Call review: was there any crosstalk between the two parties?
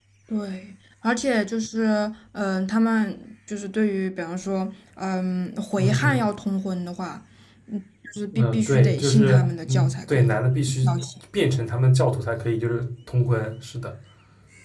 Yes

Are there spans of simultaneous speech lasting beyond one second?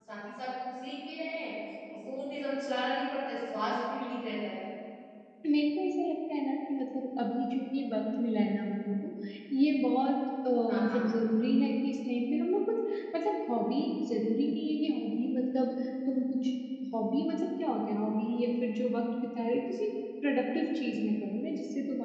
No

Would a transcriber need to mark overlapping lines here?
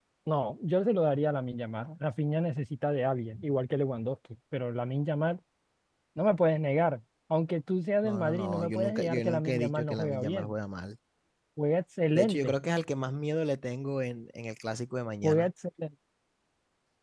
Yes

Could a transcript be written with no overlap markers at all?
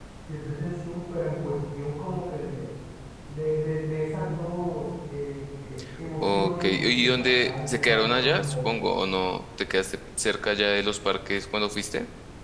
No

